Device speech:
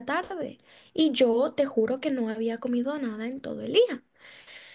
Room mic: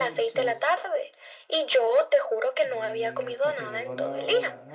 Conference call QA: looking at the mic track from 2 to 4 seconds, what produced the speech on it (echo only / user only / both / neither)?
both